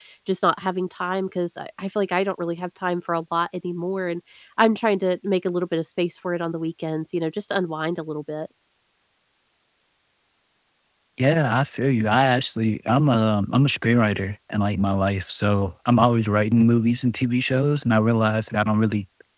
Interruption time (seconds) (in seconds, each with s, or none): none